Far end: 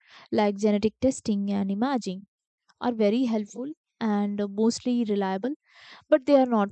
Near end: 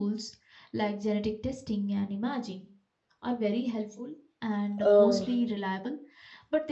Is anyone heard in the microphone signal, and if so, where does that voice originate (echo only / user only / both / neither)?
both